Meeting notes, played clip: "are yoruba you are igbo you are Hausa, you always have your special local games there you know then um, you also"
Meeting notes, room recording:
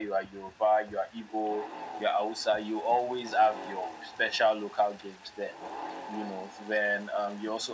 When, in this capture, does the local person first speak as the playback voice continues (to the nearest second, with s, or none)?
none